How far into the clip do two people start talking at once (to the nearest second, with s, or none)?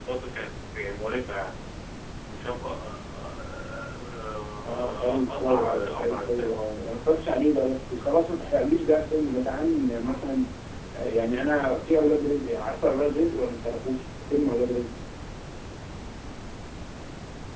5 s